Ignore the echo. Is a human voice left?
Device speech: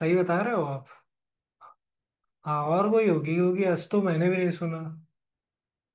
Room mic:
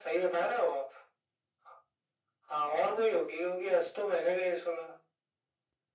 No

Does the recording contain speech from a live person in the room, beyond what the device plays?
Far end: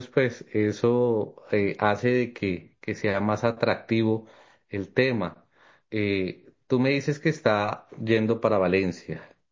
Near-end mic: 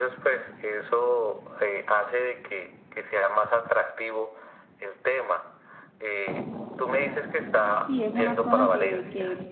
Yes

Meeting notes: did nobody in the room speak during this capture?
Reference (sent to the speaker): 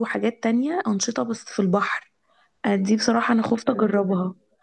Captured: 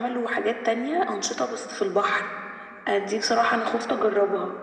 Yes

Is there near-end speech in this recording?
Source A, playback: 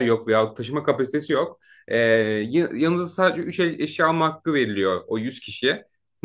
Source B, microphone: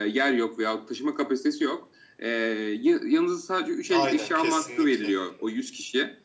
Yes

